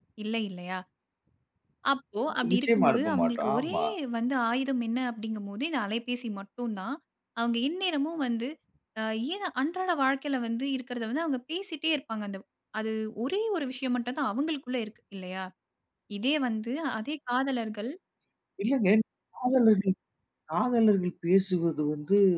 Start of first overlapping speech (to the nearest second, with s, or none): 3 s